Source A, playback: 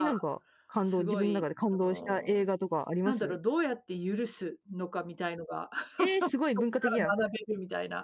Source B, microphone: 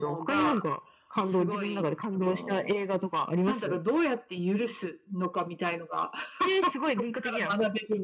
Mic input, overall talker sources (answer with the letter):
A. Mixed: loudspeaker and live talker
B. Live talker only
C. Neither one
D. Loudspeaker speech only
D